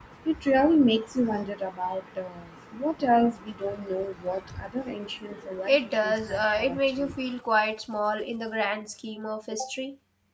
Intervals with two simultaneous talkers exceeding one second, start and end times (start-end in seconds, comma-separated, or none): 5.7-7.2